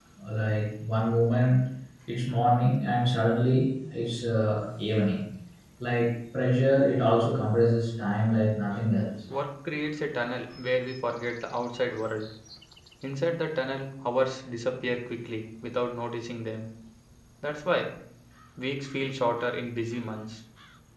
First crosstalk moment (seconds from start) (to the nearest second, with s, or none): none